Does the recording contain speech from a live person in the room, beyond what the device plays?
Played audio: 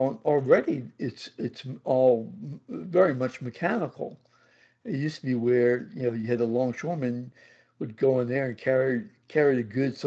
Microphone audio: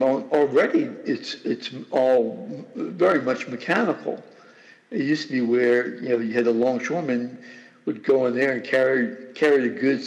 No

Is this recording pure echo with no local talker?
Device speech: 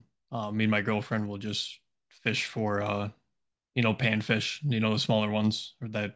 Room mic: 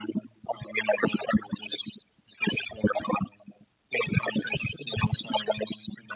Yes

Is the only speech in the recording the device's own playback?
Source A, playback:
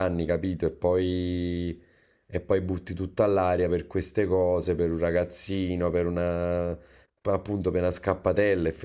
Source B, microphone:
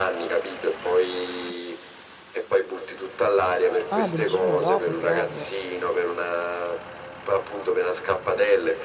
No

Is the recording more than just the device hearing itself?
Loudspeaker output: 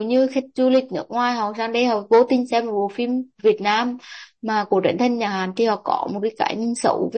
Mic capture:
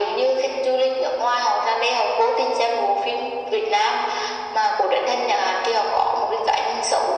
No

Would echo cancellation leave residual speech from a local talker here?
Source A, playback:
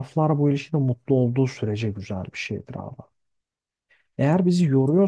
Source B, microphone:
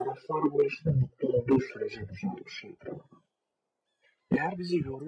No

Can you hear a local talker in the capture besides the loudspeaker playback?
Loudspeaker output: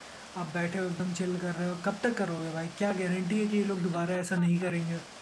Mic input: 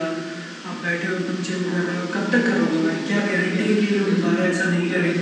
Yes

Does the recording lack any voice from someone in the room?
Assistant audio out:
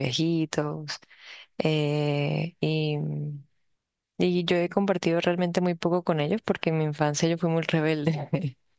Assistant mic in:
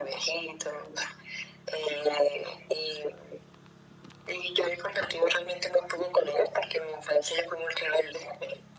Yes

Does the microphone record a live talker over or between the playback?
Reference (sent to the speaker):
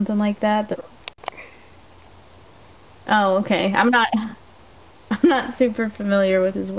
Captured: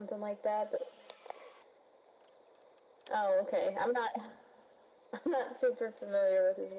No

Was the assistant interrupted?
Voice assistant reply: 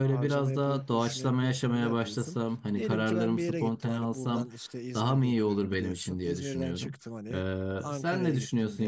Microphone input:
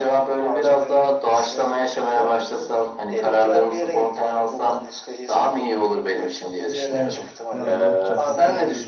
Yes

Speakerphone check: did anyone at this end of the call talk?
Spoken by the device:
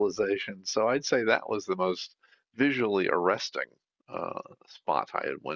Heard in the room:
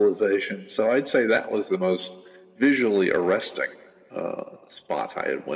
No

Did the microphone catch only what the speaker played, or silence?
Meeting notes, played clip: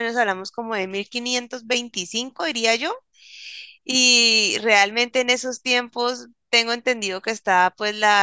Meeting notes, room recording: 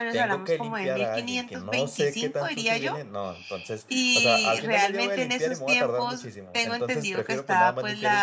No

